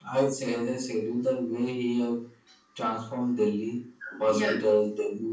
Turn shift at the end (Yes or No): No